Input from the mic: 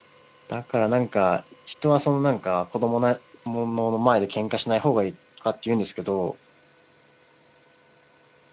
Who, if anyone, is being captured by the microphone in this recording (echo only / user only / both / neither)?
user only